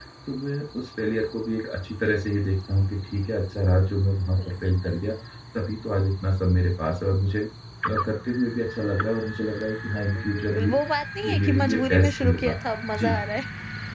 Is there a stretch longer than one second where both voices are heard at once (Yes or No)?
Yes